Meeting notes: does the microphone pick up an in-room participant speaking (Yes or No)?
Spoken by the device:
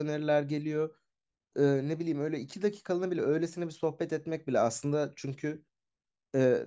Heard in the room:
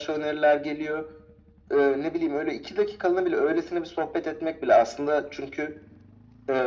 No